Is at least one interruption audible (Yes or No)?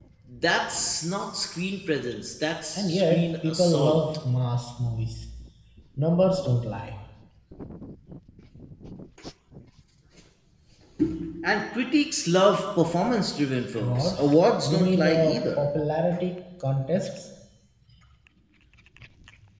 Yes